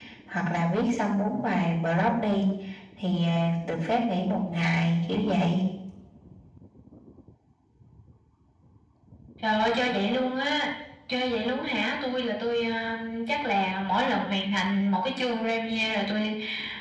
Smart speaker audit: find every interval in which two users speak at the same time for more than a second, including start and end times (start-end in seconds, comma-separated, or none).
none